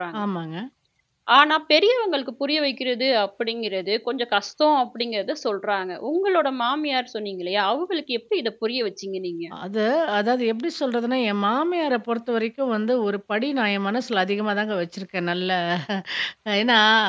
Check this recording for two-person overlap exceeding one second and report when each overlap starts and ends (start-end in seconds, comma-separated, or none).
none